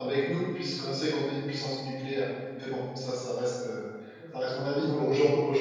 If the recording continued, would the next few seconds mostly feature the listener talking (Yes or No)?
No